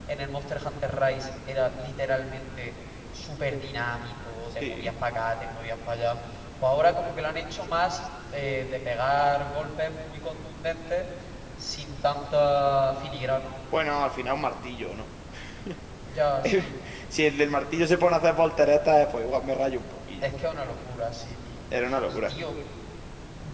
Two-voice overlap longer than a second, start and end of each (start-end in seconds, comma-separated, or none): none